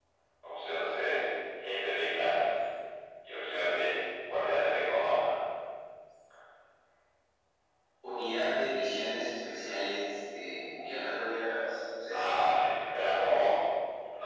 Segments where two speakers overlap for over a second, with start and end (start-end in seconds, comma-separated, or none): none